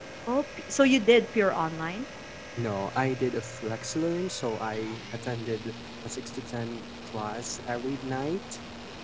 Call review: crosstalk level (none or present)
none